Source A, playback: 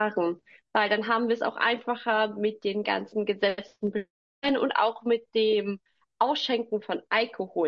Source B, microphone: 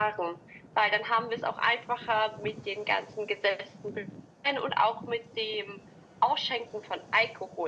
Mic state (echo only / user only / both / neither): echo only